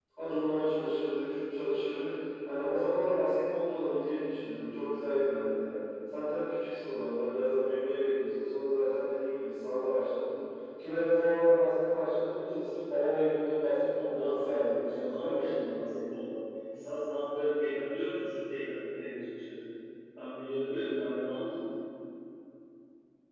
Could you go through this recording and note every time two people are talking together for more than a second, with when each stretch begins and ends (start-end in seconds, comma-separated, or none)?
14.1-15.6